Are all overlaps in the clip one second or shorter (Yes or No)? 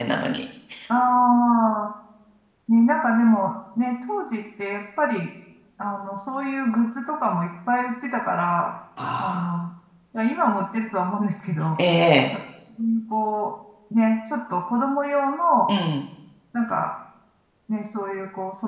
Yes